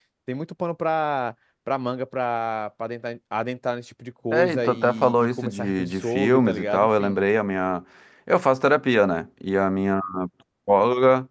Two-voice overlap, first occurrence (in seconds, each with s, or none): 4.3 s